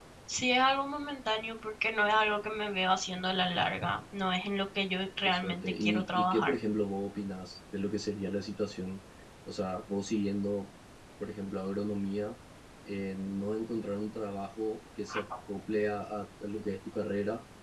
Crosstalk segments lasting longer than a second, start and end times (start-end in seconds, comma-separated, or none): 5.2-6.6